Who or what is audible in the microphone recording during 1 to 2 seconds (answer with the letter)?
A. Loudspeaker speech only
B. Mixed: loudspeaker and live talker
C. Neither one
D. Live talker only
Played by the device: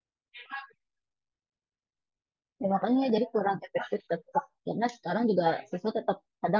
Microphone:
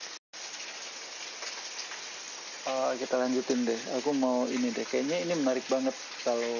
C